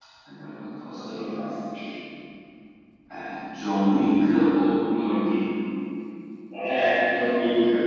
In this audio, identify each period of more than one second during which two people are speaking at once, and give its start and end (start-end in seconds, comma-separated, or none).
none